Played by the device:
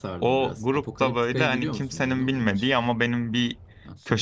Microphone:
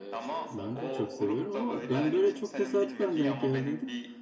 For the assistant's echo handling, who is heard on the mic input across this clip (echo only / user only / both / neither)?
both